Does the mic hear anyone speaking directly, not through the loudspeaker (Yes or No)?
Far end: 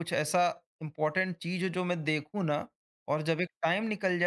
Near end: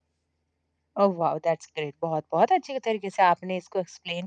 Yes